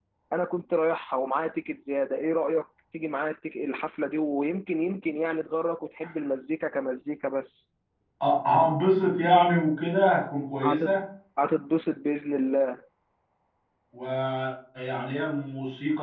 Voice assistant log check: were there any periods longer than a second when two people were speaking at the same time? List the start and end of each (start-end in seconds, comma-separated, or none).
none